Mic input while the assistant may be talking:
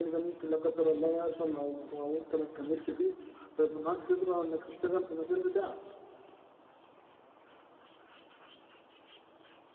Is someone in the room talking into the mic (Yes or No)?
Yes